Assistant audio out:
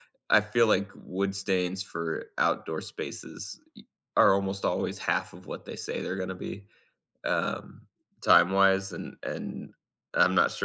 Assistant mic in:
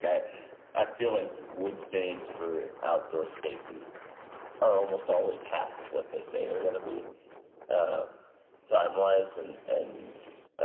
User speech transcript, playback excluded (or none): none